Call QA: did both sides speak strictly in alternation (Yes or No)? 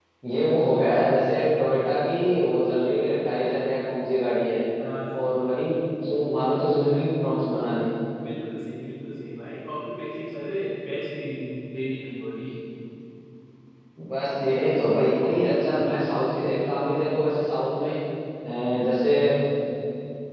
Yes